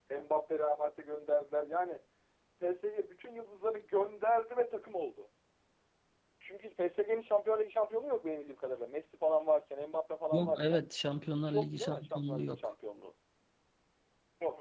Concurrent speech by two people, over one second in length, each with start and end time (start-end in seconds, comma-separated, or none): 11.4-12.7